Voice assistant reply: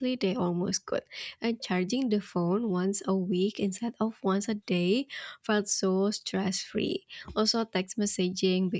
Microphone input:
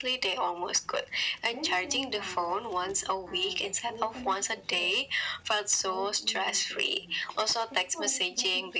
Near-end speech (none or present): present